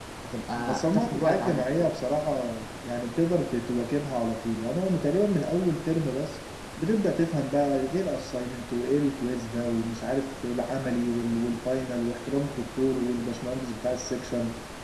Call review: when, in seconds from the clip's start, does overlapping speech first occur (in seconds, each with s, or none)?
0.6 s